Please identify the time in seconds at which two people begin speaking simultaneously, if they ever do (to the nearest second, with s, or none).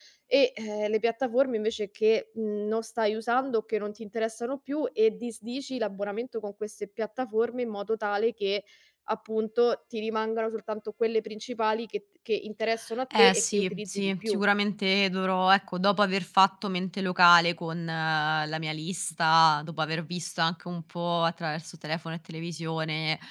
13 s